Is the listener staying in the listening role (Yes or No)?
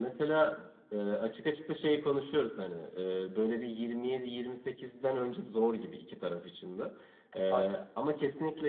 Yes